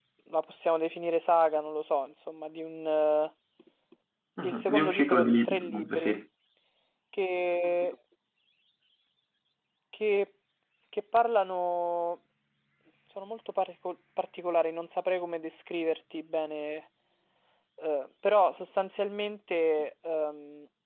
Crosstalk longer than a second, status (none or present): present